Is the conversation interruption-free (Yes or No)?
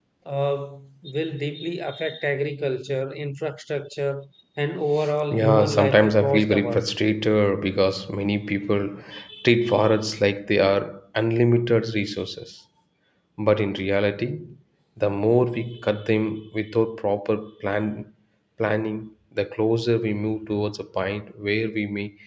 No